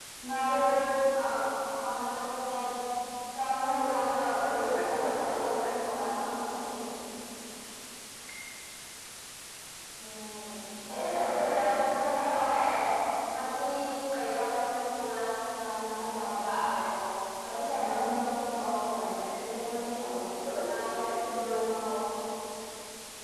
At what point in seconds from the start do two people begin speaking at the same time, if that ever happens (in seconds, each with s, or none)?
4.6 s